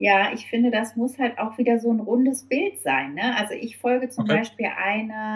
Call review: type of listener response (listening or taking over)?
listening